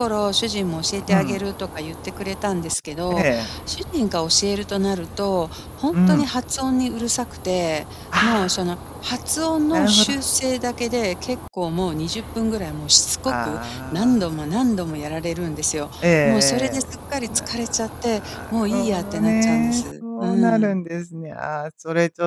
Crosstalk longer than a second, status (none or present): present